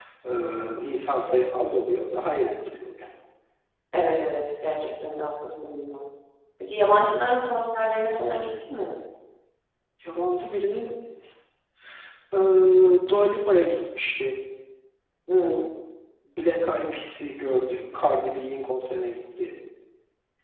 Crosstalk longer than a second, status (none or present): none